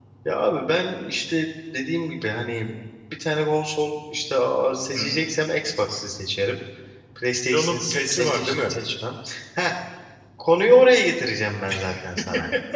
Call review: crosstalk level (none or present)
present